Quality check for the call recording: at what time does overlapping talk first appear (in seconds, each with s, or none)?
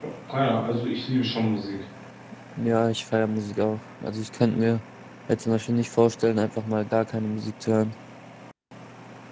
none